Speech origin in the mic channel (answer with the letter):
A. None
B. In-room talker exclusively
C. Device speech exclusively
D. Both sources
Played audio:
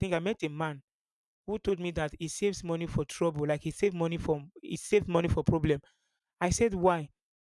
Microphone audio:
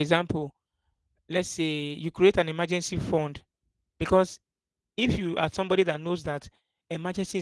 B